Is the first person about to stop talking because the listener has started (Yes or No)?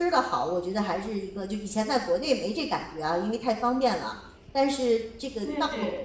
No